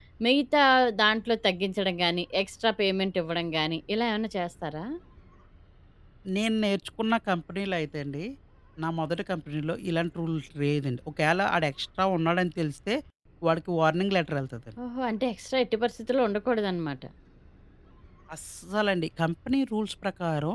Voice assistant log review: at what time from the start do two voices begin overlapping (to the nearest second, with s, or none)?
none